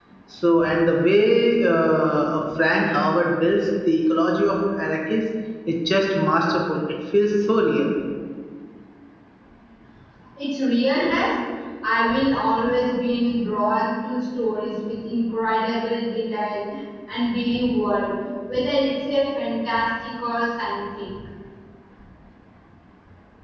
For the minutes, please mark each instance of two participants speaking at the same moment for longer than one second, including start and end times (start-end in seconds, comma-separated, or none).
none